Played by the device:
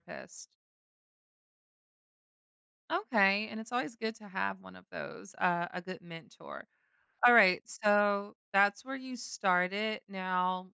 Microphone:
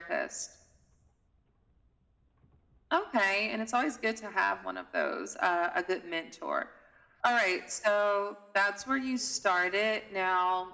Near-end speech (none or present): none